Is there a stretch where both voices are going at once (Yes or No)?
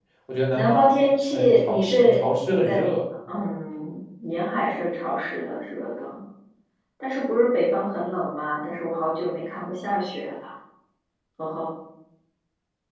Yes